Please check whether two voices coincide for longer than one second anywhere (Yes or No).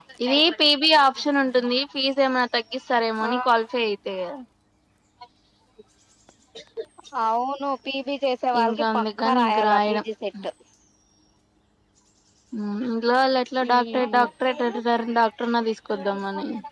Yes